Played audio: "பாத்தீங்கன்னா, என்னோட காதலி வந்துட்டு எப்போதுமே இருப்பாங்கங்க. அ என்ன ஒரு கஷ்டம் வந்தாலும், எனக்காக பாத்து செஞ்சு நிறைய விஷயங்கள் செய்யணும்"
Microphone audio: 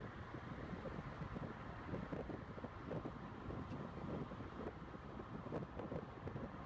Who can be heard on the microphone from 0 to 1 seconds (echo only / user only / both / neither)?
neither